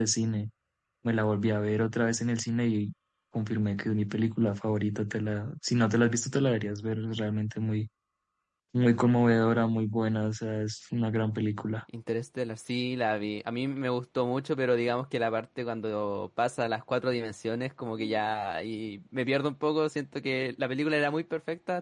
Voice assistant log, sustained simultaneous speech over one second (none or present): none